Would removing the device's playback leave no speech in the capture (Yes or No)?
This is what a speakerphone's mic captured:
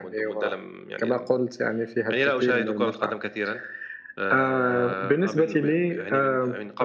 Yes